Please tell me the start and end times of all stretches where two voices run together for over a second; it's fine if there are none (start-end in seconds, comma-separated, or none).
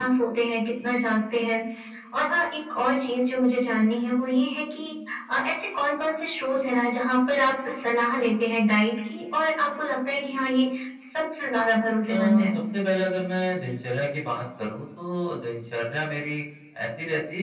none